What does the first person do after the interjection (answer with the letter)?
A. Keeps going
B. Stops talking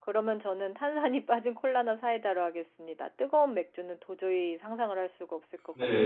B